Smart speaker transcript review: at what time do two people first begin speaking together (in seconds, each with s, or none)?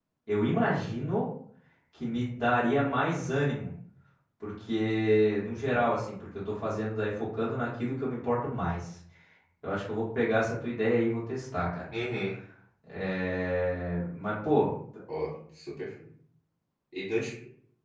none